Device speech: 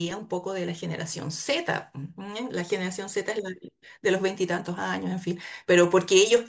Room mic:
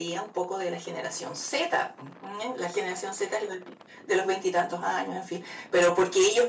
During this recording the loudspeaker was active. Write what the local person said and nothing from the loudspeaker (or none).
none